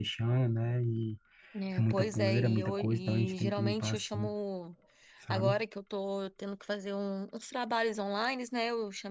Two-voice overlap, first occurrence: 1.8 s

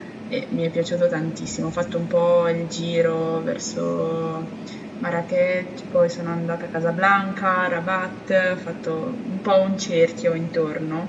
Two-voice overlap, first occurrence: none

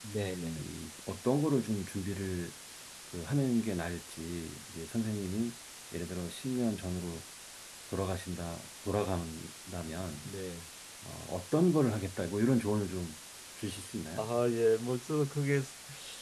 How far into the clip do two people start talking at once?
none

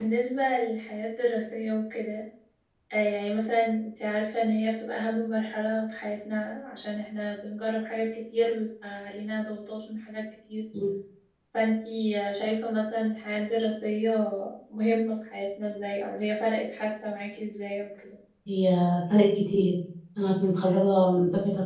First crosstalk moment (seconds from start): none

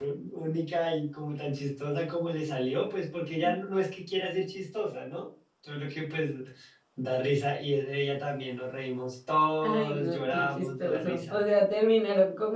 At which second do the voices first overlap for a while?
9.6 s

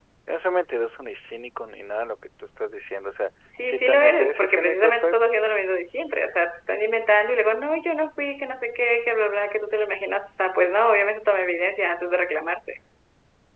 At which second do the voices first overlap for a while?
3.7 s

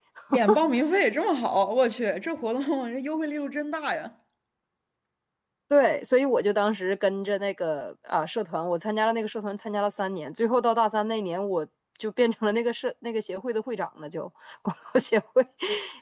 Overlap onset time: none

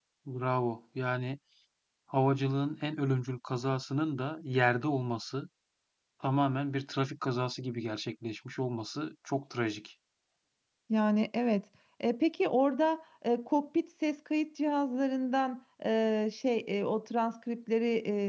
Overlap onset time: none

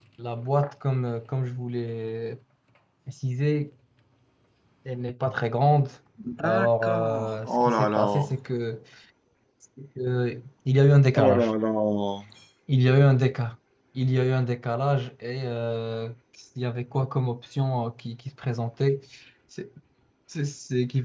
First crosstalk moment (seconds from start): 6.4 s

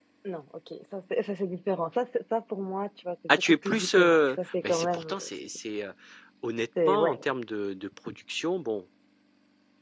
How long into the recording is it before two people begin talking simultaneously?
3.4 s

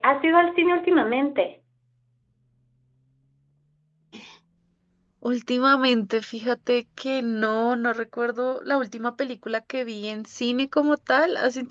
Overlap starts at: none

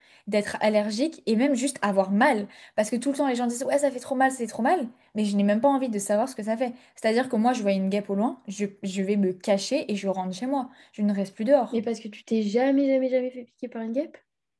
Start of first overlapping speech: none

